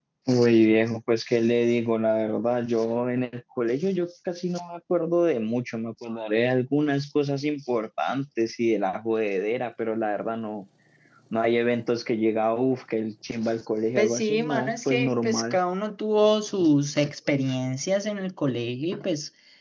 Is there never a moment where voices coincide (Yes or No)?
No